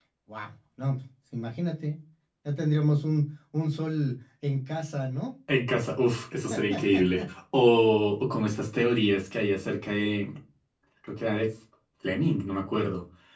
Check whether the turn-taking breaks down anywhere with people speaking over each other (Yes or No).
No